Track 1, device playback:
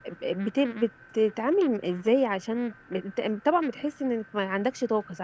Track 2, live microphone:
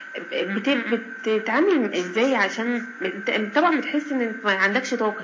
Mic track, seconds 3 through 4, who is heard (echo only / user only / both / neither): echo only